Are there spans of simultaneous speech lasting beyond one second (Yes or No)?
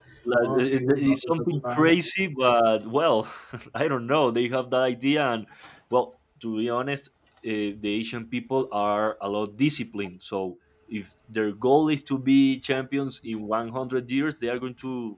Yes